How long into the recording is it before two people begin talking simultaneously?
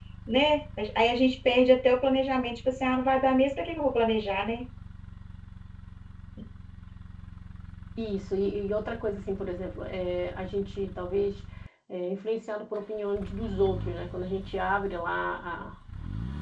none

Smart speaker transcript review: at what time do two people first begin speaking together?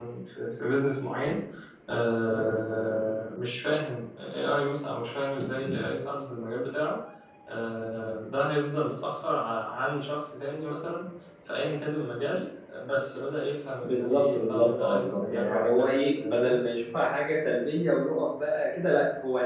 13.8 s

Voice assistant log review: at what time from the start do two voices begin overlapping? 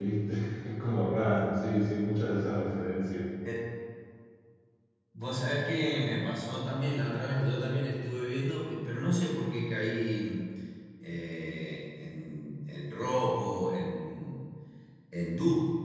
none

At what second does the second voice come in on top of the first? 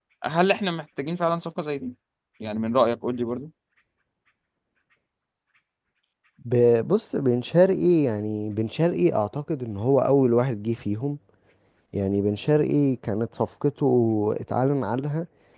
none

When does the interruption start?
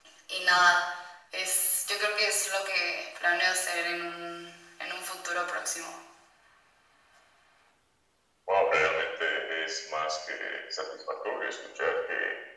none

